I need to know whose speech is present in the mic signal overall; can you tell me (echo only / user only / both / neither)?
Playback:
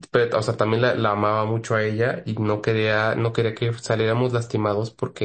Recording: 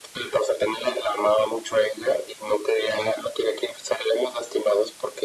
echo only